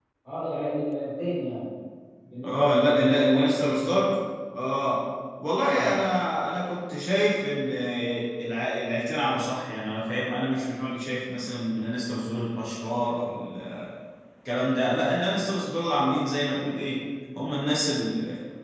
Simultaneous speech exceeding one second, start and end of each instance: 2.4-4.1

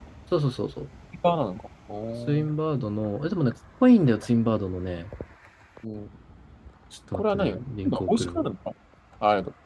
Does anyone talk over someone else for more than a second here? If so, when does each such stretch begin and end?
7.1-8.4

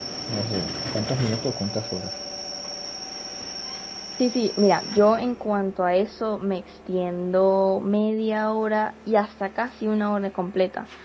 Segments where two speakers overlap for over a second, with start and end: none

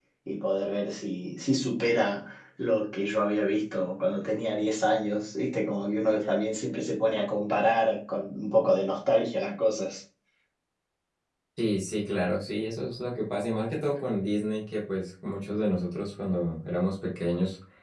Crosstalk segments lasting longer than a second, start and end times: none

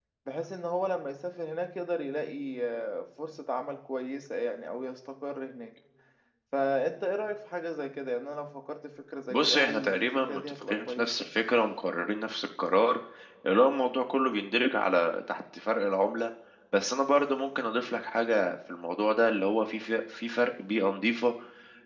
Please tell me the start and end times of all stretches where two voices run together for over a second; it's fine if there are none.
9.3-11.3

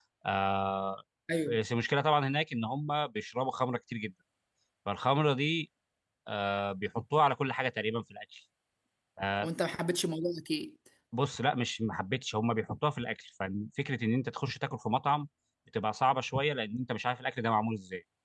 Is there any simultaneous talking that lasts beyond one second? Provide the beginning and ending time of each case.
none

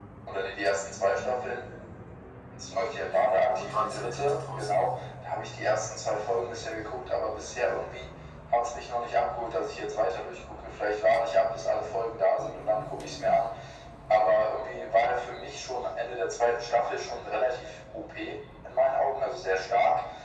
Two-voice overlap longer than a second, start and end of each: 3.1-4.8

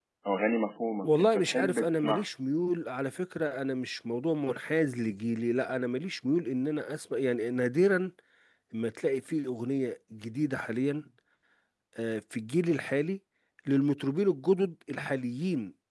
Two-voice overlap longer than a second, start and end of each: 1.0-2.2

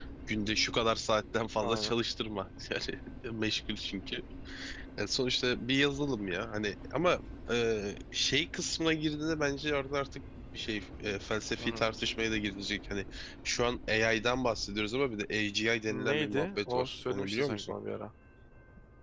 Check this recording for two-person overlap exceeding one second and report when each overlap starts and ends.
15.9-17.8

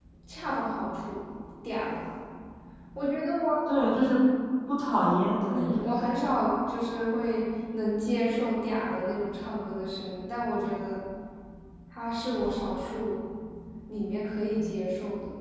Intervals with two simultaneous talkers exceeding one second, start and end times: none

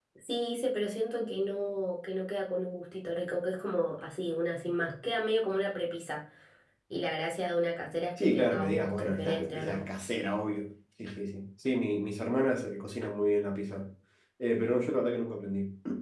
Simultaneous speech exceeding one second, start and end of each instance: 8.2-9.8

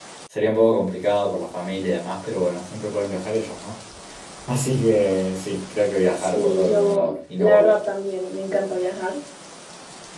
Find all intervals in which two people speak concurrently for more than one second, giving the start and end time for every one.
6.2-7.8

